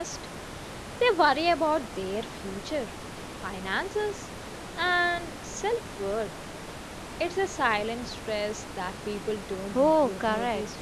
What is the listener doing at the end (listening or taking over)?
taking over